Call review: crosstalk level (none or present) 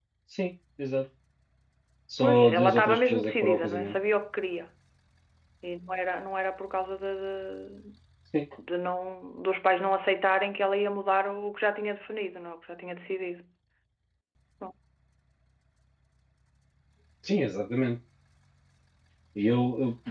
present